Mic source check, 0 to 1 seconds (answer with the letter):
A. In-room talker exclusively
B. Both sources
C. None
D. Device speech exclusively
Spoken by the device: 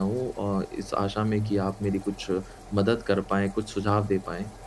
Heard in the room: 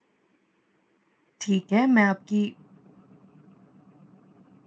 C